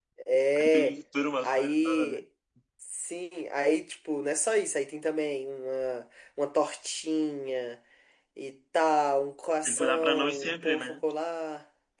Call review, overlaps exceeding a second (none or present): present